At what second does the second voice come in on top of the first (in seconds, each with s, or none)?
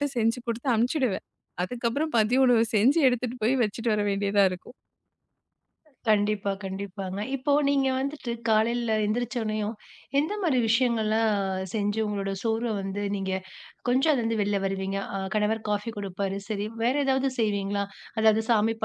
none